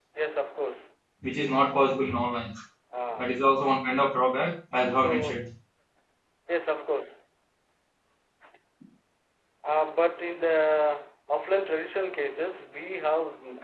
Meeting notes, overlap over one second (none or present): none